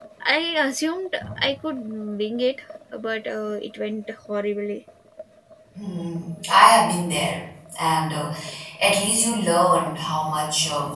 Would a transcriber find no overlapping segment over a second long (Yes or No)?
Yes